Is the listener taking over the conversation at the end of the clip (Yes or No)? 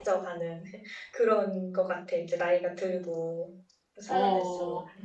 Yes